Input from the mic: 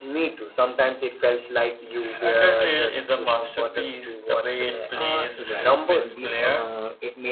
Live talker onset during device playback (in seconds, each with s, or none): 4.9 s